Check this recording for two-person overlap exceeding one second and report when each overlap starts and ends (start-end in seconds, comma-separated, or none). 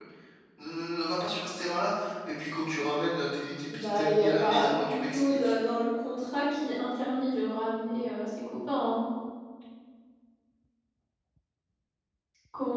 3.7-5.4